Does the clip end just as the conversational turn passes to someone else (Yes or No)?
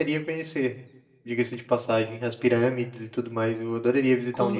Yes